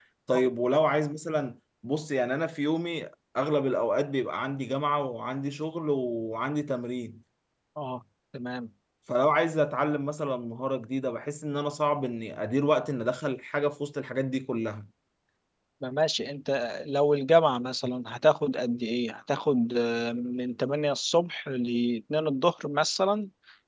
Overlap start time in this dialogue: none

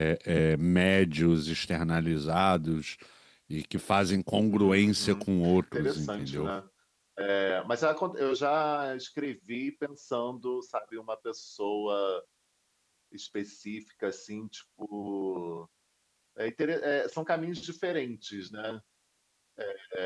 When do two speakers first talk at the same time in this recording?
4.5 s

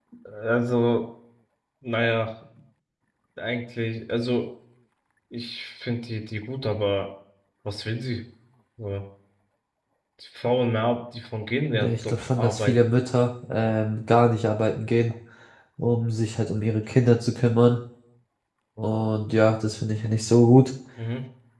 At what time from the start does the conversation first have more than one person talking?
11.7 s

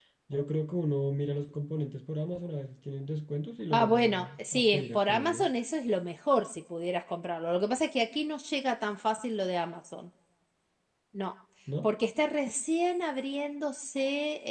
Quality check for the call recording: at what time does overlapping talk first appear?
3.7 s

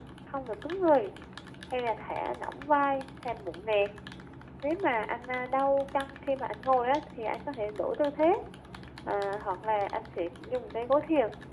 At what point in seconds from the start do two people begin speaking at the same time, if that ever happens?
none

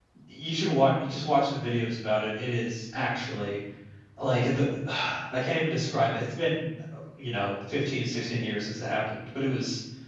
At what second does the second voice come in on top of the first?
none

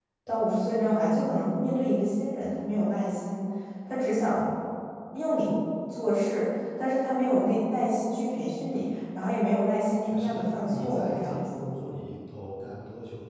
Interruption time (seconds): 10.0 s

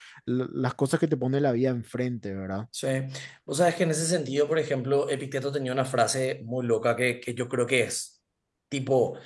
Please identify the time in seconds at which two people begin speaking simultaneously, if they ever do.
none

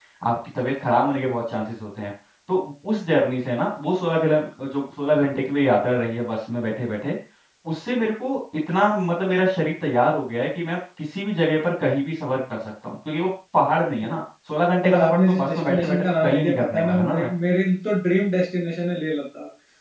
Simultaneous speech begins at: 14.8 s

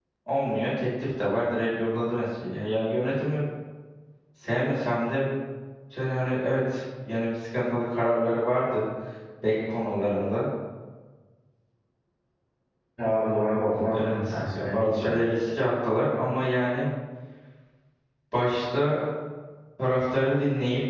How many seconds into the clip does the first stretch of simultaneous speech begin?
13.7 s

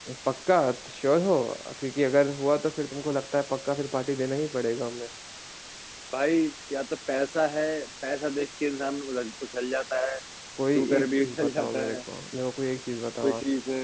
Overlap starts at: 10.8 s

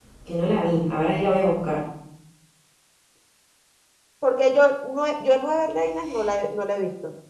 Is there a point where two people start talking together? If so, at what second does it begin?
none

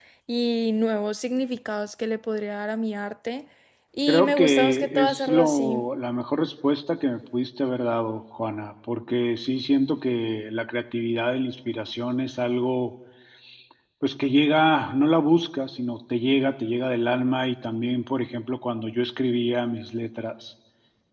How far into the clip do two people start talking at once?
4.1 s

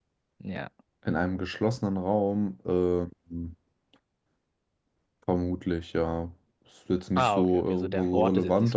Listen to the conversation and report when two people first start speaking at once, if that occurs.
7.2 s

